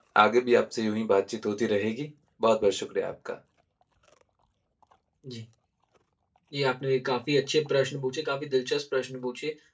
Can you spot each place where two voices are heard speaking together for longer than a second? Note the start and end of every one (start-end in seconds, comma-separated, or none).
none